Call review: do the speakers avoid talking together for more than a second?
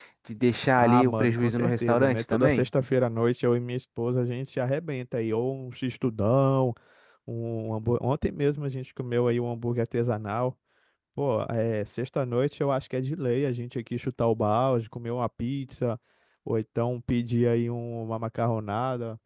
No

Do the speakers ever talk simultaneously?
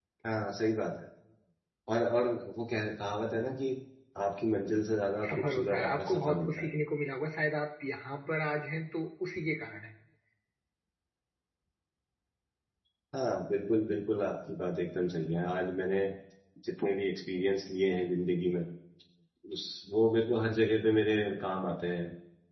Yes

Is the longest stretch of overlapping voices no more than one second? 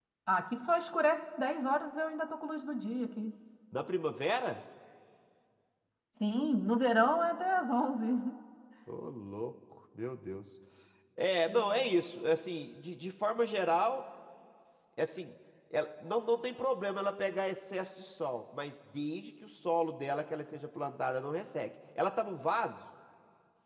Yes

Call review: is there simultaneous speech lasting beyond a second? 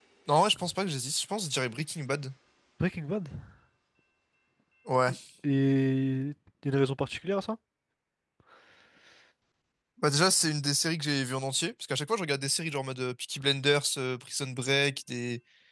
No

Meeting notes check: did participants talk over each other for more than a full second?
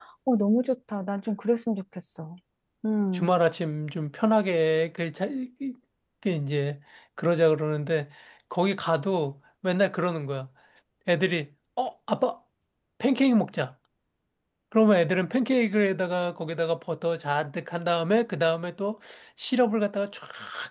No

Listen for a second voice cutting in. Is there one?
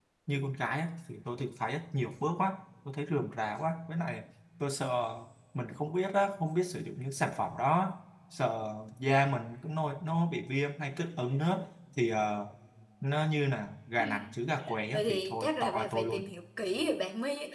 Yes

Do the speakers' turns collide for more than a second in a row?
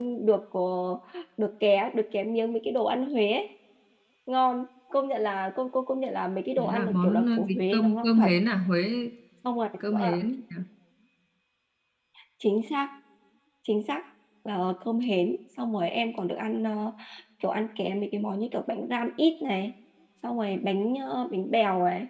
Yes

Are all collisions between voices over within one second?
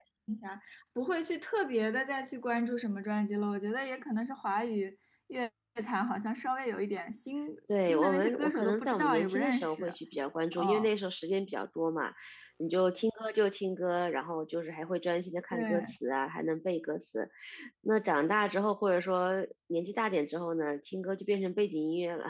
No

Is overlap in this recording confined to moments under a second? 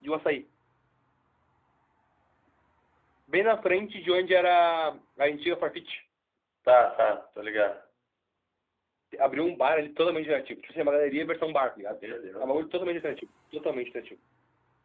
Yes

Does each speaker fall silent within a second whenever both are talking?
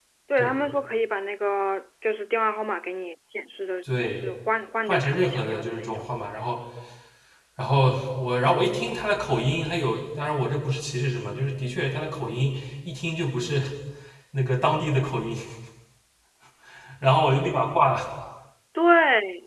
No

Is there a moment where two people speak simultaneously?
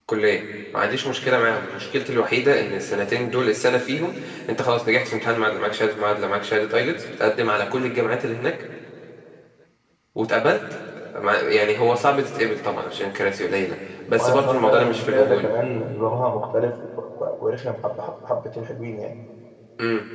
Yes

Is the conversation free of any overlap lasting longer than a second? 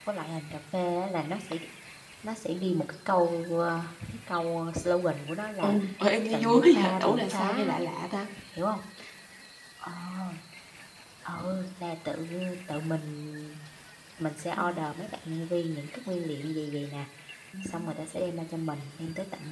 No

